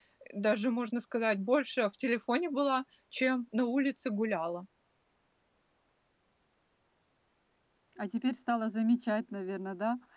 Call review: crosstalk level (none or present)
none